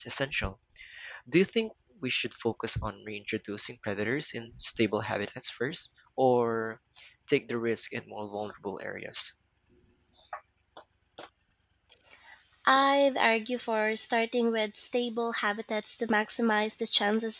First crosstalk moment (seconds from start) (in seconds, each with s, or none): none